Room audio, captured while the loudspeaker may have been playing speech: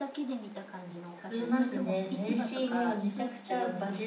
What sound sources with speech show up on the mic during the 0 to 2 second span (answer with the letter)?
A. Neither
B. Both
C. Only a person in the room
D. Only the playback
B